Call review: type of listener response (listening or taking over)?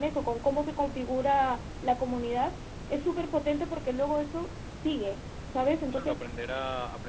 taking over